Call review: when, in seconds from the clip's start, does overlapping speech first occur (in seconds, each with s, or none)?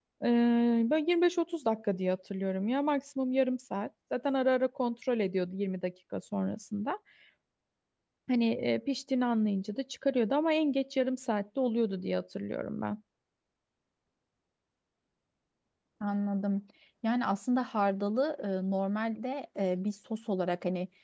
none